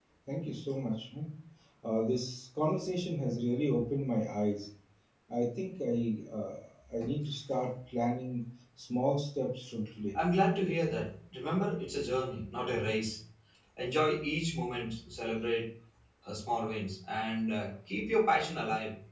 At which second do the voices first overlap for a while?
none

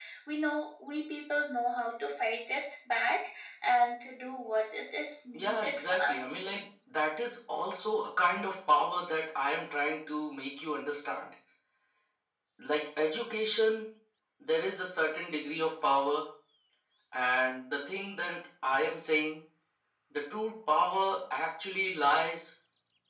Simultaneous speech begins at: 5.3 s

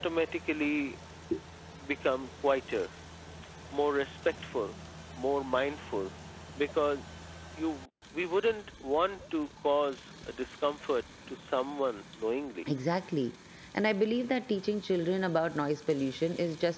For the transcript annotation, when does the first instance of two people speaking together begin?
none

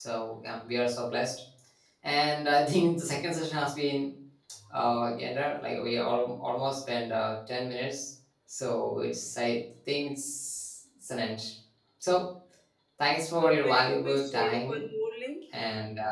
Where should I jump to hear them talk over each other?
13.4 s

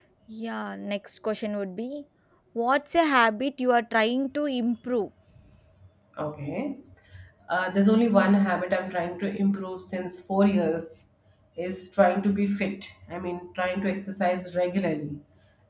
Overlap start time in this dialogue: none

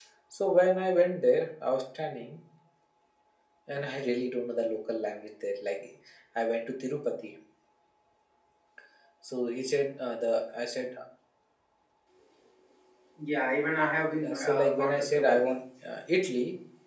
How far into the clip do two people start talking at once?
14.2 s

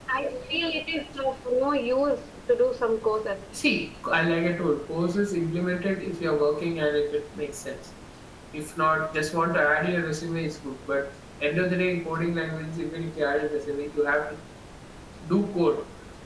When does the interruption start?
none

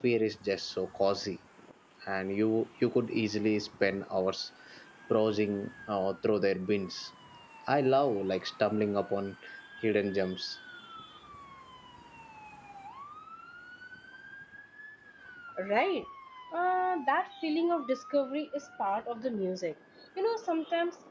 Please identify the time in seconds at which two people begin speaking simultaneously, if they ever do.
none

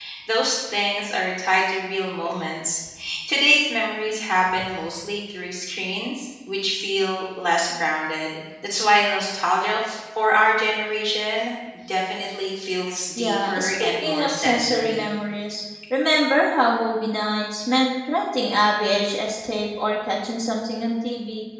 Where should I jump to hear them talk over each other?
13.2 s

